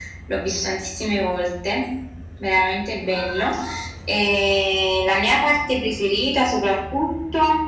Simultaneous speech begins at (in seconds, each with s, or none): none